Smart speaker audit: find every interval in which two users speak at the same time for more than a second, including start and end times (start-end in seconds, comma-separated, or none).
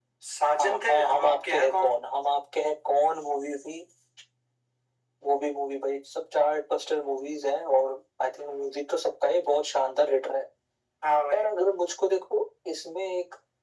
0.6-1.9